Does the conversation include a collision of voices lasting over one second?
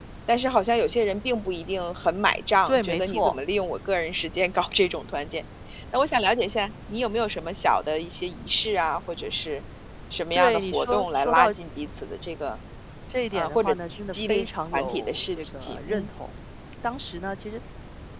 Yes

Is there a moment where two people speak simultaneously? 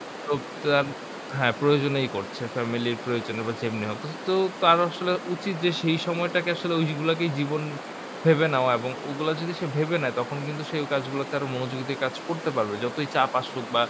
No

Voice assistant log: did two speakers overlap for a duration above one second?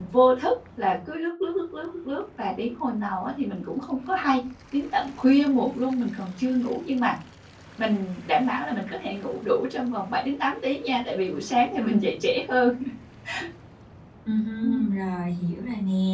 No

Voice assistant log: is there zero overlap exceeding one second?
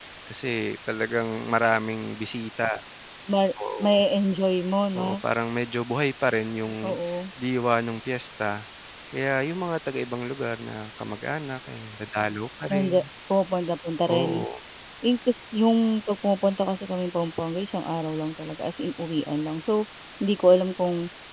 Yes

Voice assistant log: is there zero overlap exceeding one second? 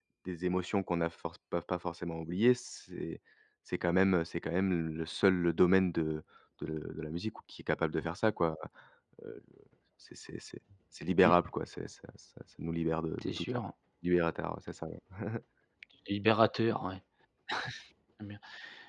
Yes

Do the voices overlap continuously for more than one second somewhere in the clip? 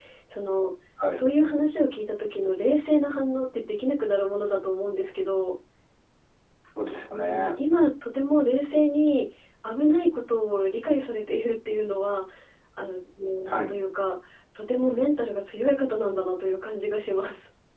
No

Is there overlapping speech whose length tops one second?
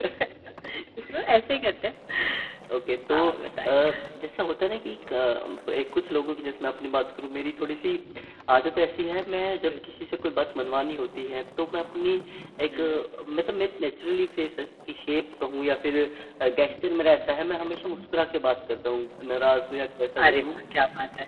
No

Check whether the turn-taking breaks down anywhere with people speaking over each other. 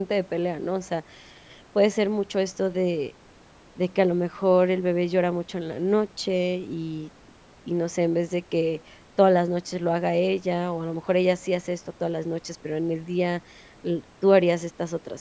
No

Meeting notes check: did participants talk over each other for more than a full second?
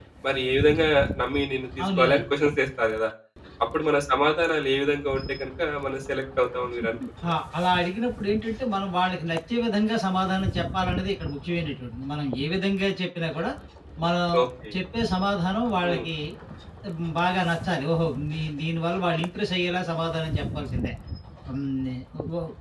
No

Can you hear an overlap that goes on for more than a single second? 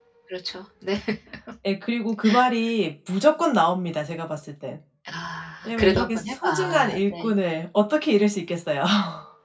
Yes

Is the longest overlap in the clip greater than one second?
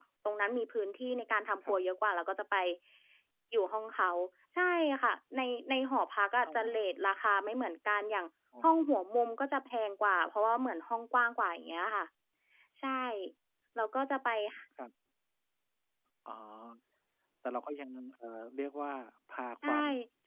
No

